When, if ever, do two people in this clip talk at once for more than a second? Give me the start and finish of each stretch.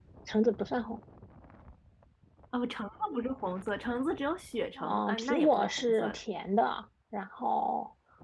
4.8-6.2

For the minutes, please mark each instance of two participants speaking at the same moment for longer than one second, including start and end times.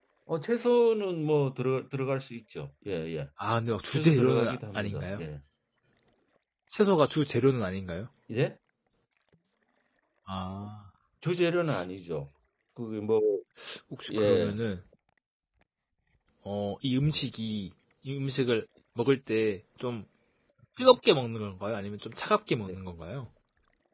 3.9-5.2

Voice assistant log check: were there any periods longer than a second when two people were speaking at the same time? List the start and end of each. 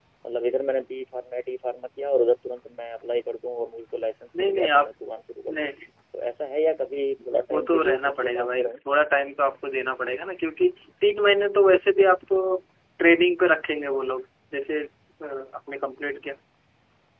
7.5-8.7

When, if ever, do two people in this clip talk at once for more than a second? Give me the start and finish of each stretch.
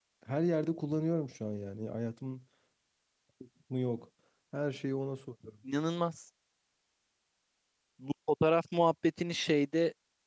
none

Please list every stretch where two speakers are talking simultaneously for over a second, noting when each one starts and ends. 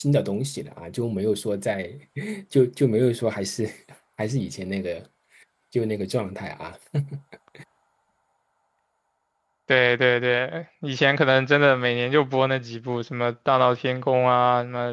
none

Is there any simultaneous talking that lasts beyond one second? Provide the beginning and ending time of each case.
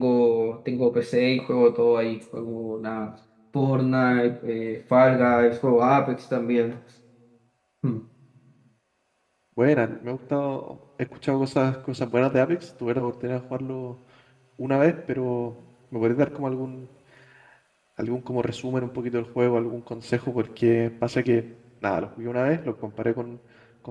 none

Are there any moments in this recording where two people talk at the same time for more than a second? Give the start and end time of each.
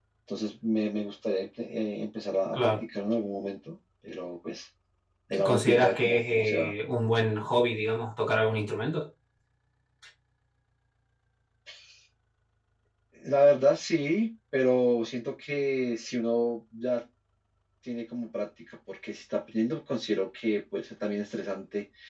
5.4-6.7

